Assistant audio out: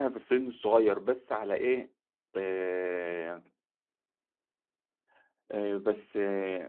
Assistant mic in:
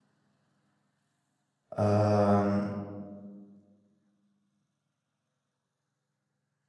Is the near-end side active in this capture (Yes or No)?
Yes